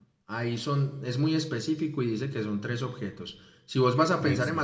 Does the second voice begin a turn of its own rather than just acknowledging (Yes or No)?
No